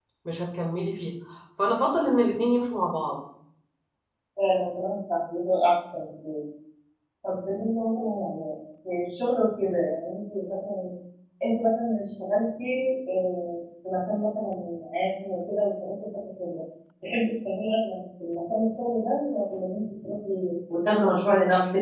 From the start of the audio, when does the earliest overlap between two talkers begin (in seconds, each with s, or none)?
none